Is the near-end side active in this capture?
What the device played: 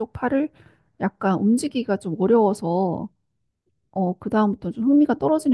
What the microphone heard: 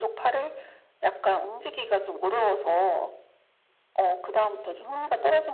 No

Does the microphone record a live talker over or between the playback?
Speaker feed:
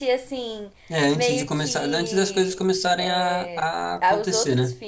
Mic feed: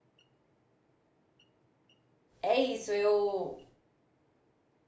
Yes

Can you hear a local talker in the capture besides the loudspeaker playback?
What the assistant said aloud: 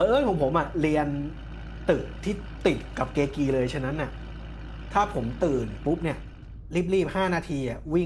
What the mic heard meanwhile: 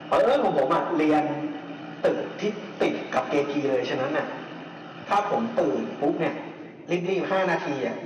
No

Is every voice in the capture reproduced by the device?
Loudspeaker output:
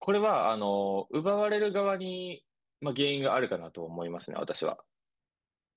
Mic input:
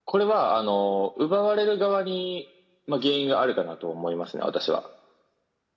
Yes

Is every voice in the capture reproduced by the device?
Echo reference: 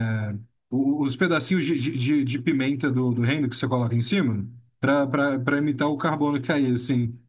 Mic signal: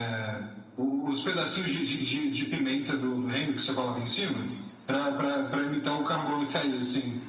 Yes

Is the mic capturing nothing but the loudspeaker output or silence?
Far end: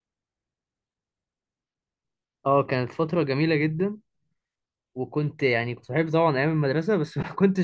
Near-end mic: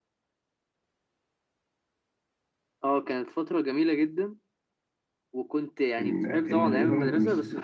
No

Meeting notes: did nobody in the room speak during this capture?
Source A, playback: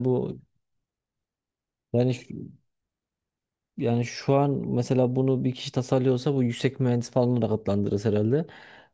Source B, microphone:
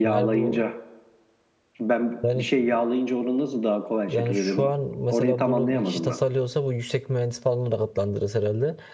No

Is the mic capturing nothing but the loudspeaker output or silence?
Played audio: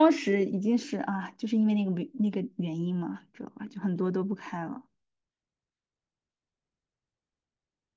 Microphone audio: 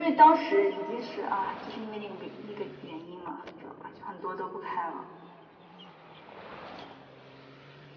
Yes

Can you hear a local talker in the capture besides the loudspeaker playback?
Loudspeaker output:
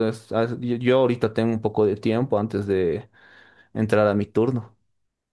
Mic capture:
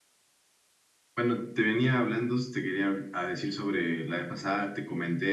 Yes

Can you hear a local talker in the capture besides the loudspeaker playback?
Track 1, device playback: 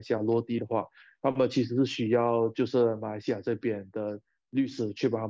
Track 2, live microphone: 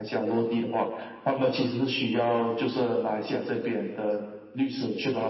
No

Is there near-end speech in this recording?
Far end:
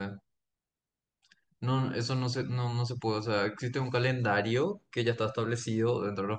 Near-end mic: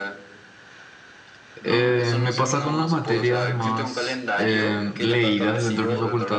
Yes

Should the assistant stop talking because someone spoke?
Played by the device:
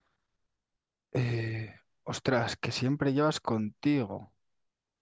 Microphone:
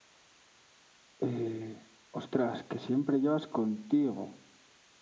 No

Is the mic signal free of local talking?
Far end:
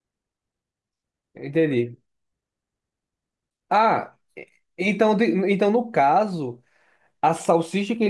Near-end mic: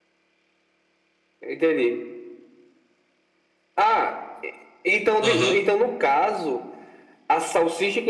No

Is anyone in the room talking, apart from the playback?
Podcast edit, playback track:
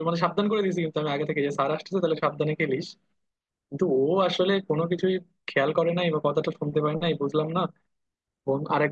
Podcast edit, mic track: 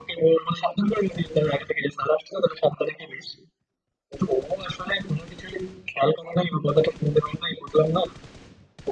No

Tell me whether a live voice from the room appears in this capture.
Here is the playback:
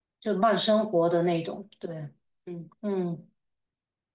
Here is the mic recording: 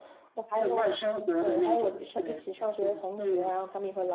Yes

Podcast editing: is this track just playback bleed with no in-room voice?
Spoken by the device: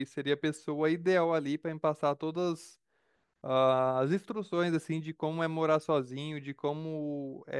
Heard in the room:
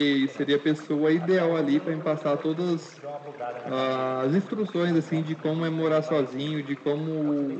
No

